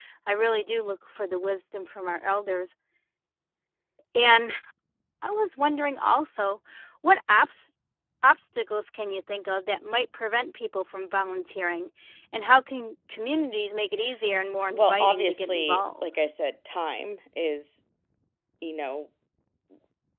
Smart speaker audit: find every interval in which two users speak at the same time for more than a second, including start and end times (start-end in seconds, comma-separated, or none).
14.7-16.1